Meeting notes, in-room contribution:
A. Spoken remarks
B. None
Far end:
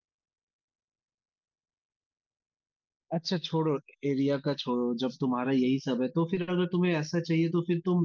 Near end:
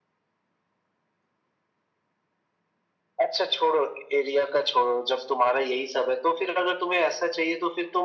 B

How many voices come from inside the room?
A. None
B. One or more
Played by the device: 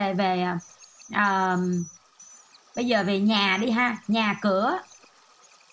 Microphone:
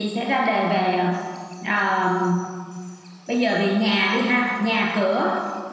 A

